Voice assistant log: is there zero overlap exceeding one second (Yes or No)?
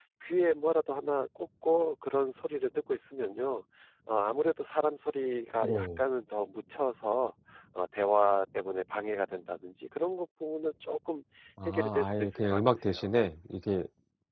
No